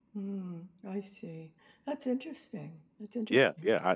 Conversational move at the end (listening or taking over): taking over